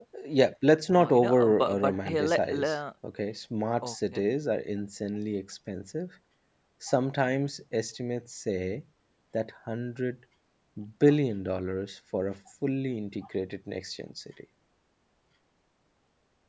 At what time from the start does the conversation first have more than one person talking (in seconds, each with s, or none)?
0.9 s